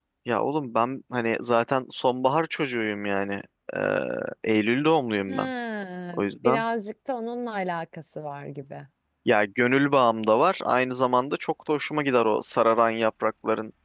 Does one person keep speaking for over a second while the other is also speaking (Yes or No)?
No